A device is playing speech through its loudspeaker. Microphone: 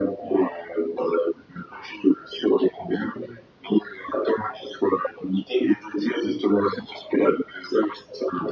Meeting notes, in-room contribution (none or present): none